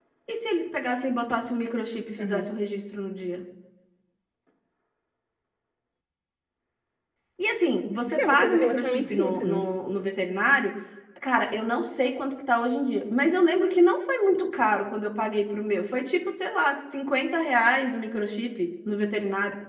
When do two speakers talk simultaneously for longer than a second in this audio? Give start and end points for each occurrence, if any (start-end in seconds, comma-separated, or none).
8.1-9.6